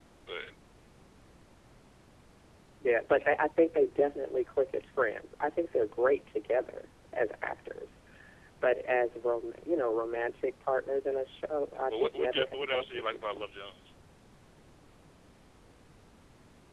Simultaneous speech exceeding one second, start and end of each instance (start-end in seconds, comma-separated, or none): 11.9-13.5